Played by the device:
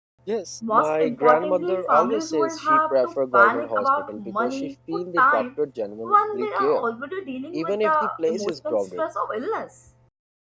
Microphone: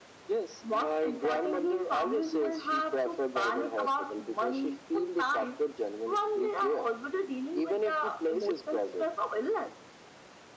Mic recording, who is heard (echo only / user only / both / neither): echo only